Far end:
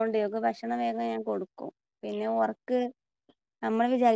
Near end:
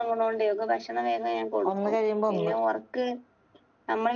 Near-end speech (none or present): present